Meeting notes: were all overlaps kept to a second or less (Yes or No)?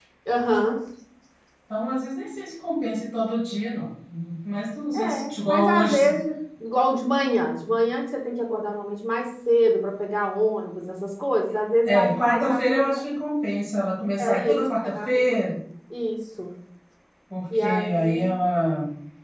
No